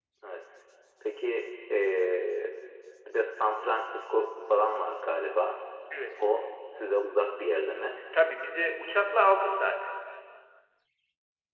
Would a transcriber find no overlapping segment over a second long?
Yes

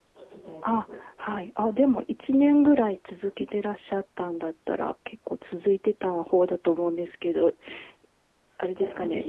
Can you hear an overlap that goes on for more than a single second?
No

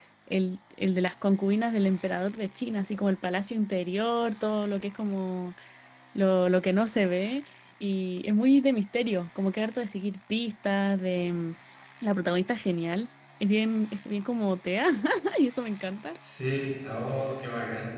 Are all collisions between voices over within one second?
Yes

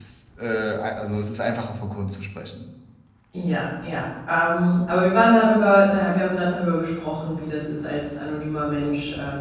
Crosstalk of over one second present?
No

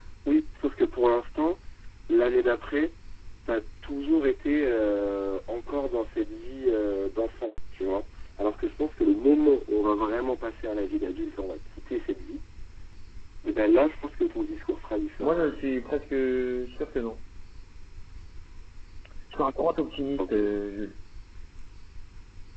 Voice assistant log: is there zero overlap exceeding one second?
Yes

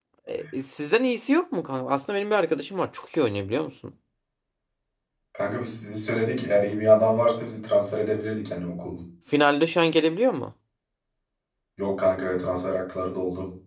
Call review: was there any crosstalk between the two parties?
No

